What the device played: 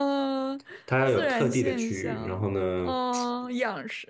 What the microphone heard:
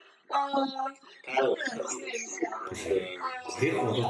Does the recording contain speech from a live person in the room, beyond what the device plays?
Yes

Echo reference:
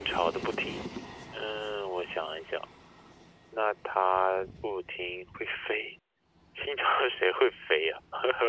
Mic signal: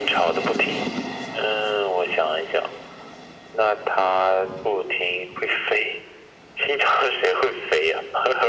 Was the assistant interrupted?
No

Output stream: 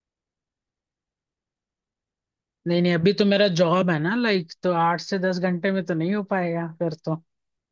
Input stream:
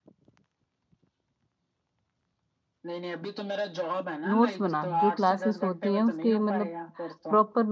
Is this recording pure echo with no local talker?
No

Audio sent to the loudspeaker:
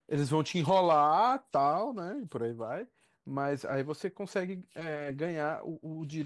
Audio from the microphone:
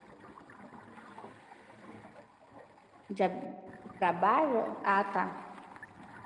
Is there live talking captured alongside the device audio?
Yes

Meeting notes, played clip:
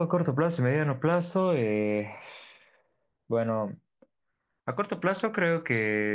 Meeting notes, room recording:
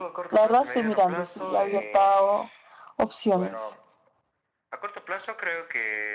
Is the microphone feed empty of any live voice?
No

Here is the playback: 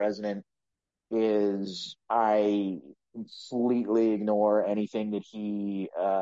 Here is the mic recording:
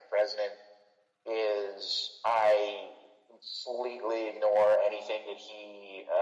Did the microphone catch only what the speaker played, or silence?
Yes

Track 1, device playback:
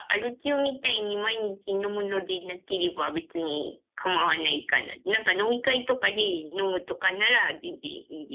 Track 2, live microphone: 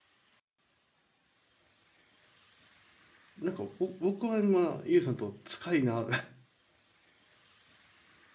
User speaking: Yes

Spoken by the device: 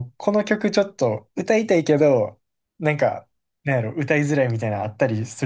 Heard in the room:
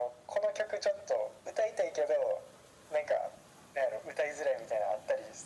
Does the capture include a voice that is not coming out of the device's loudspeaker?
No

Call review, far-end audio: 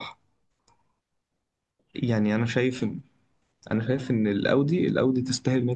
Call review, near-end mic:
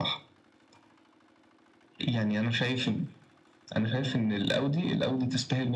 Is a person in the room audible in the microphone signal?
No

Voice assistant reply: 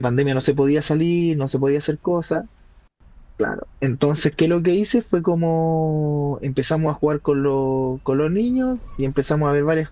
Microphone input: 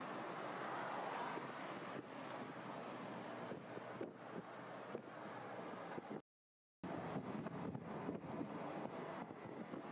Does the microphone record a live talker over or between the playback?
No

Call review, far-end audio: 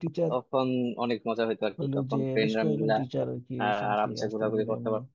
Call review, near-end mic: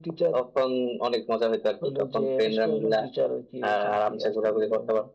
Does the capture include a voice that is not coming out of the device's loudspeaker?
No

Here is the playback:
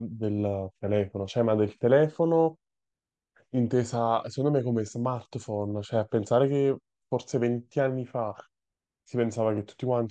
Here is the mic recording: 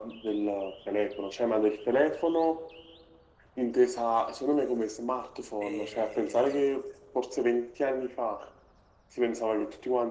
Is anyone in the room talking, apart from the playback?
Yes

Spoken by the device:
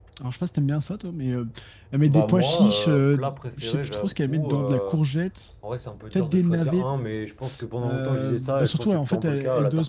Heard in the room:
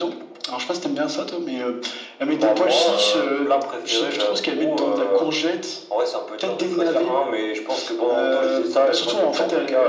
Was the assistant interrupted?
No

